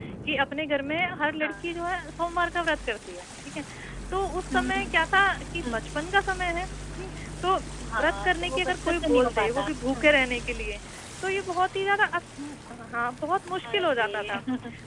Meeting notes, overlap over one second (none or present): present